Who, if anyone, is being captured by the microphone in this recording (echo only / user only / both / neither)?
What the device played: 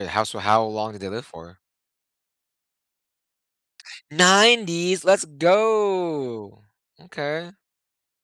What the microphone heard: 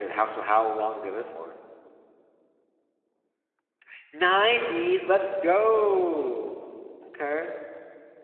echo only